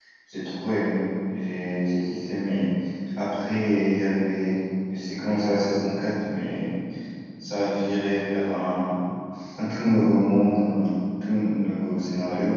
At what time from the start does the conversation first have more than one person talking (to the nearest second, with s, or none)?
none